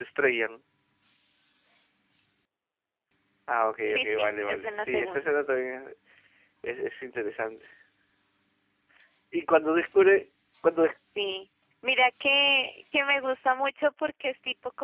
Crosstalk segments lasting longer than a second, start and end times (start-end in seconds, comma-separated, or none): 3.8-5.3